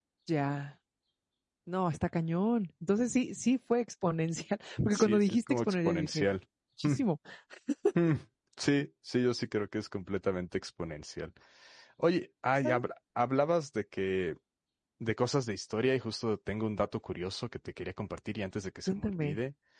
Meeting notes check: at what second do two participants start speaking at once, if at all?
5 s

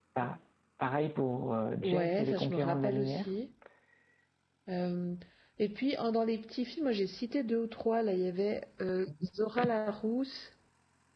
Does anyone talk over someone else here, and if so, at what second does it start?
2 s

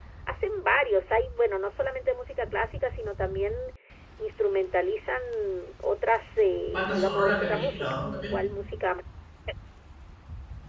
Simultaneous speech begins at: 7 s

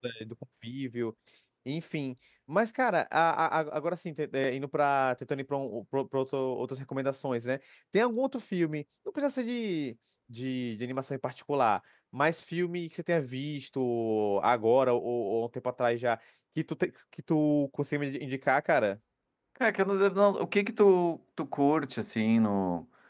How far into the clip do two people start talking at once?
none

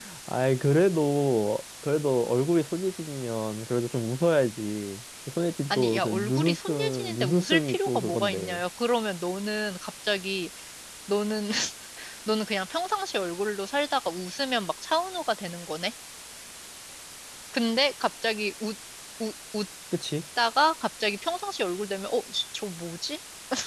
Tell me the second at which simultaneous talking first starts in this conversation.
6 s

